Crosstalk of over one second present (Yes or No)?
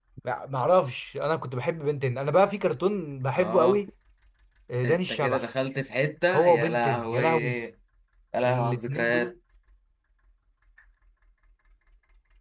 Yes